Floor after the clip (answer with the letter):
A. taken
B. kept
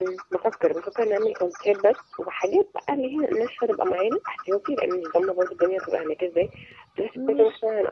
B